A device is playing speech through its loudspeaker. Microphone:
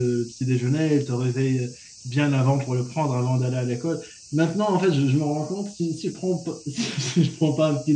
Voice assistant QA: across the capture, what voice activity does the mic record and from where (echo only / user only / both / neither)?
user only